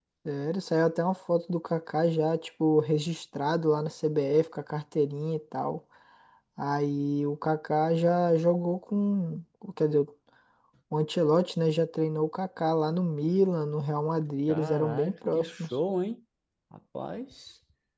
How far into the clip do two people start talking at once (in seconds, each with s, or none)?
14.5 s